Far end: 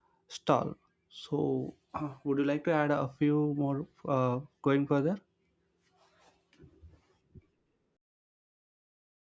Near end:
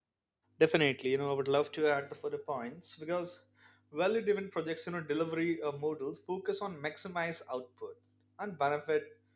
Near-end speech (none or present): present